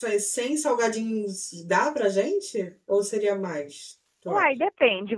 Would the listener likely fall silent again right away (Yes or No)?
No